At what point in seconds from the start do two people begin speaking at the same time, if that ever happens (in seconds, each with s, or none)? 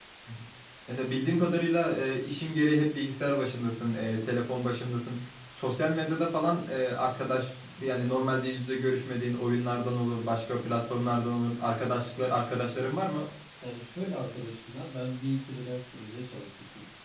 none